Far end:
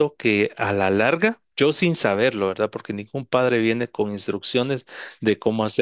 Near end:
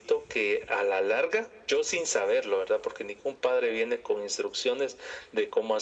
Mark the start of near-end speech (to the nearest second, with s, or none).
none